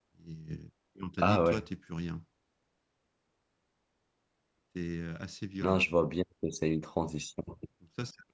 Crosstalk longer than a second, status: none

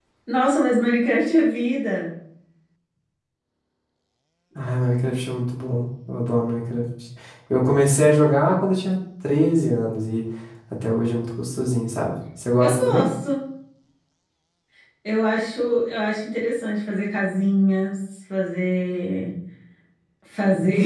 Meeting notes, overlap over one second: none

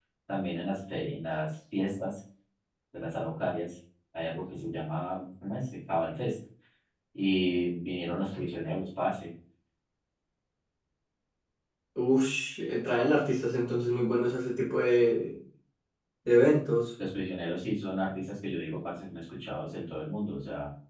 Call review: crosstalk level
none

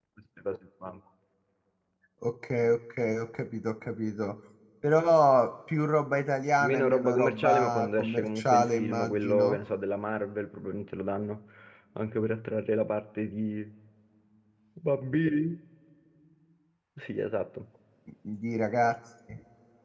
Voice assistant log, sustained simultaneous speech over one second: present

